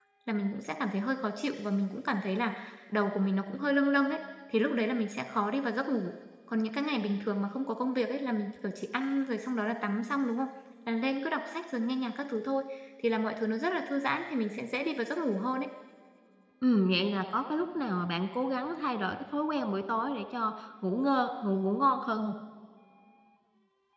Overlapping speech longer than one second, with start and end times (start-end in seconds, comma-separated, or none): none